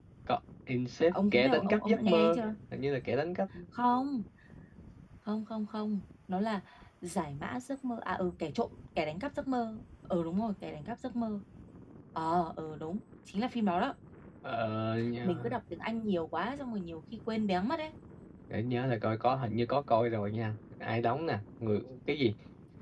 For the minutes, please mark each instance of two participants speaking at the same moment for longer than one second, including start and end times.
1.1-2.4

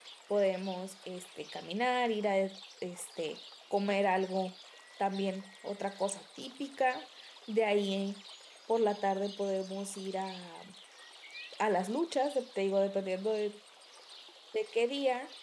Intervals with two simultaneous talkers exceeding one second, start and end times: none

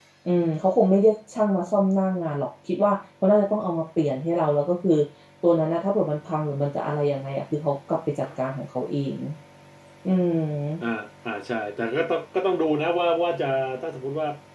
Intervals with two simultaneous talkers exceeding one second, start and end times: none

